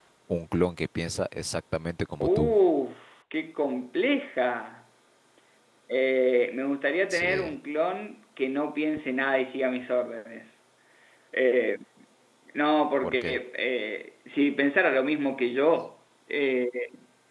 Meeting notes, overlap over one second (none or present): none